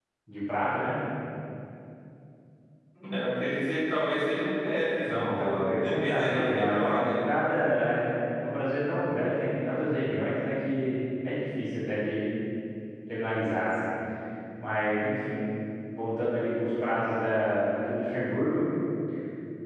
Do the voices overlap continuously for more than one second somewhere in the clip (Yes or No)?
Yes